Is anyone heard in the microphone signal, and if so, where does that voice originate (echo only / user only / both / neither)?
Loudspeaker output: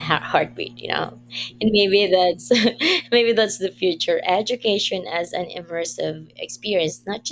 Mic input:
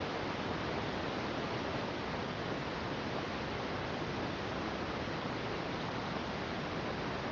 neither